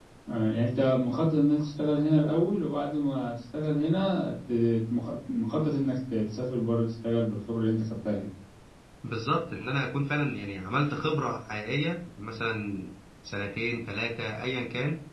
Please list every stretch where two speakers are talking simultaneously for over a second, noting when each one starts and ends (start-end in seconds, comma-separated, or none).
none